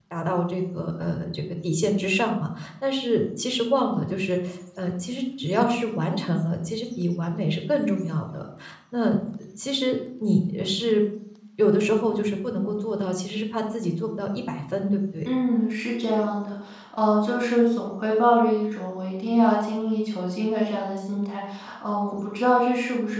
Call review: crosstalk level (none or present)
none